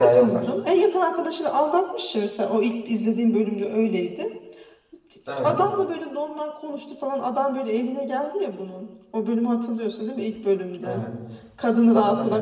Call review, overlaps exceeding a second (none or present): none